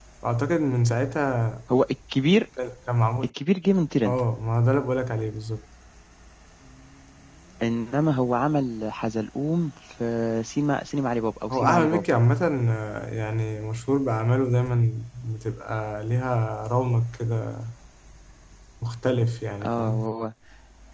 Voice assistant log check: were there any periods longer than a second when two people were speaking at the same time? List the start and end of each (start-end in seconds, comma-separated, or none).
none